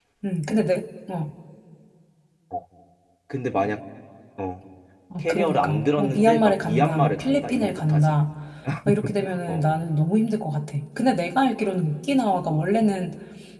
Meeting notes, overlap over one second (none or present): present